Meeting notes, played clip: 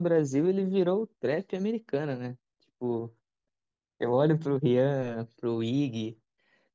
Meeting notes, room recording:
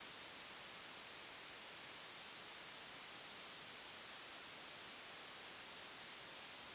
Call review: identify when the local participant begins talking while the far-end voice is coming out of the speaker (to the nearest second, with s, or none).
none